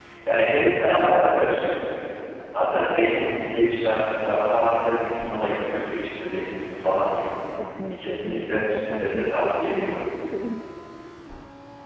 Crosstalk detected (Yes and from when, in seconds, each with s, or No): Yes, from 8.0 s